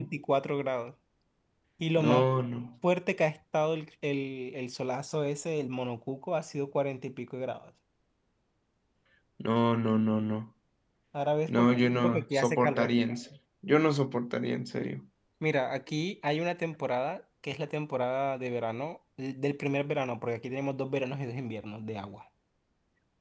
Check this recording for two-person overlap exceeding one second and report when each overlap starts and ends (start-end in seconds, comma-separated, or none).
11.5-12.9